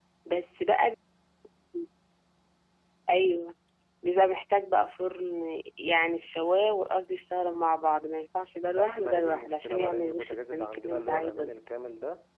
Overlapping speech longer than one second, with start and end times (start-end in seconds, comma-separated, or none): 8.6-11.5